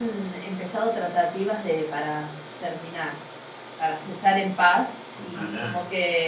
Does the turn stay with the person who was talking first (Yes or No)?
Yes